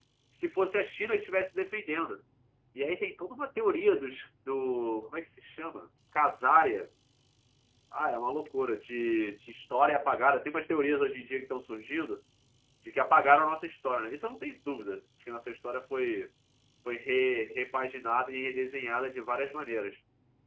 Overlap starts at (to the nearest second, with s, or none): none